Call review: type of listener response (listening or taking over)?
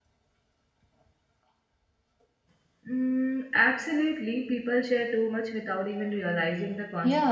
taking over